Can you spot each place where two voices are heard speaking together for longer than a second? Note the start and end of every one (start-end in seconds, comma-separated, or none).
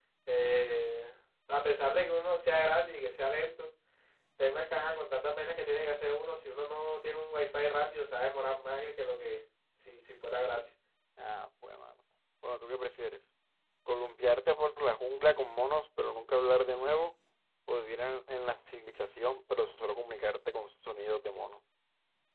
none